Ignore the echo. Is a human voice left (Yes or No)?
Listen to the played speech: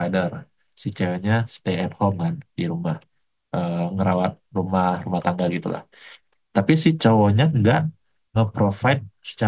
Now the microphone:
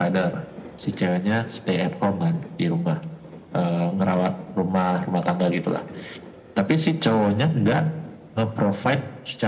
No